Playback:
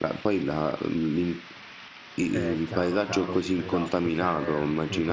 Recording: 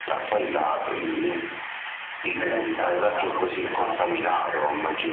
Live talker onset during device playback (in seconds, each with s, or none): none